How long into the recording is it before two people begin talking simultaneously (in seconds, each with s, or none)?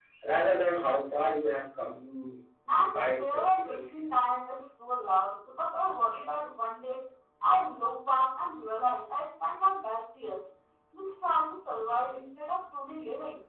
2.7 s